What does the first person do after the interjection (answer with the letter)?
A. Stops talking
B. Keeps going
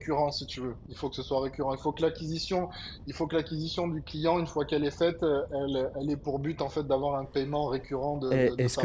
A